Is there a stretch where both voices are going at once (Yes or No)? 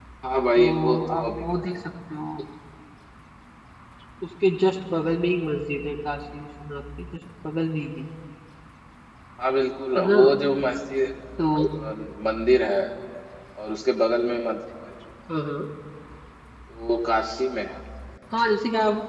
Yes